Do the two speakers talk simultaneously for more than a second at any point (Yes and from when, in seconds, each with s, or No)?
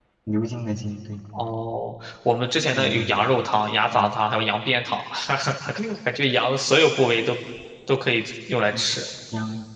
No